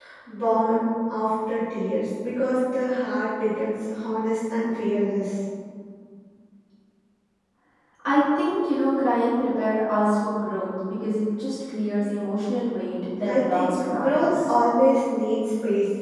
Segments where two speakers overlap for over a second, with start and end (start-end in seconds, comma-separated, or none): 13.2-14.5